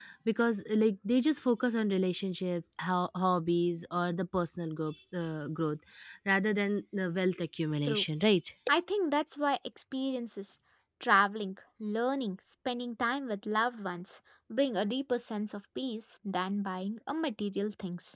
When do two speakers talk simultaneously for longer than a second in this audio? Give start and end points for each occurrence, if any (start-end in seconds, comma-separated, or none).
none